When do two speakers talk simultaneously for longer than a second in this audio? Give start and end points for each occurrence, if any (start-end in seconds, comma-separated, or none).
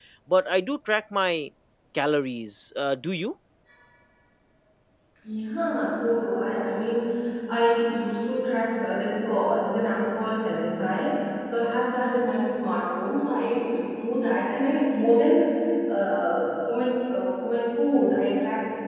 none